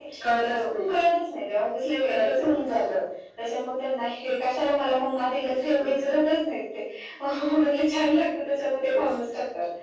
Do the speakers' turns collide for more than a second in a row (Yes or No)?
No